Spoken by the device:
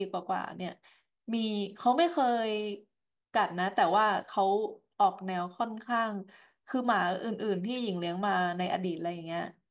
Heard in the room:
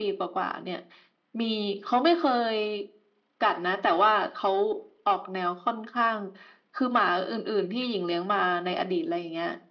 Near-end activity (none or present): none